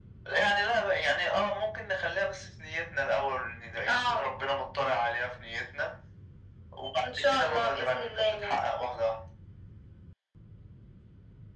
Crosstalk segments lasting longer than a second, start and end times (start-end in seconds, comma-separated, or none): 7.0-8.6